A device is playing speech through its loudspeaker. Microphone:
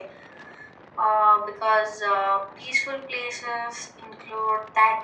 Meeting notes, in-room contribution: none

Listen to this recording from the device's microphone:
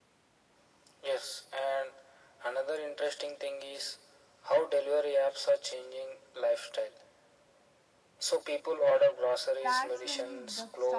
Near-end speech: present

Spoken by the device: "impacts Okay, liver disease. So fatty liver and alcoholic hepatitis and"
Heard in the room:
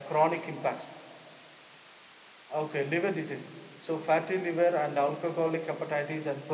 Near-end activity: none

